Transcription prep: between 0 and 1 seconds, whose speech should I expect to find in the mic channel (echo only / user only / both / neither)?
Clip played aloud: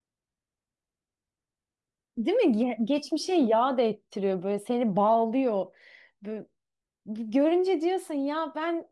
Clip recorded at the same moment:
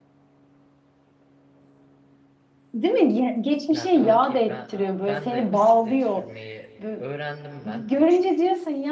neither